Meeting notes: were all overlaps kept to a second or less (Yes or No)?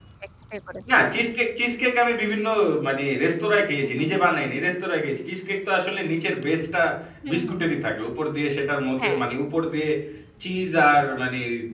Yes